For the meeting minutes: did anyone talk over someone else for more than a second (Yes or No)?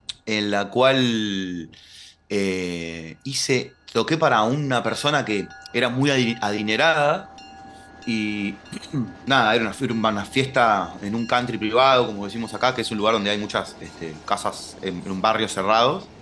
No